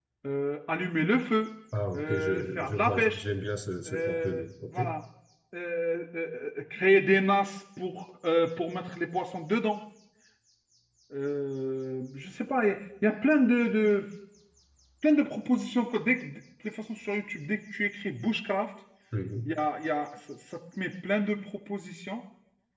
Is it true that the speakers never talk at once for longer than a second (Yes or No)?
No